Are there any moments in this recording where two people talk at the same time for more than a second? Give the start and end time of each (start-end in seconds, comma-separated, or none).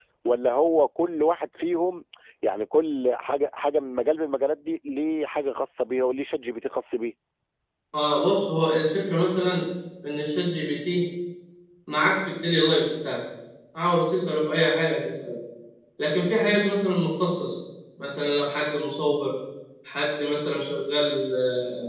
none